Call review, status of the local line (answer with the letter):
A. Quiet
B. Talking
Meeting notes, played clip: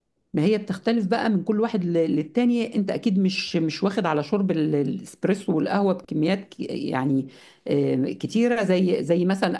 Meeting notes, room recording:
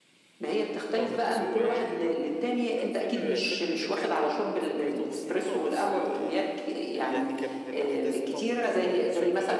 B